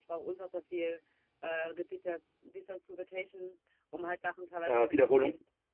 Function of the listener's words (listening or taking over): listening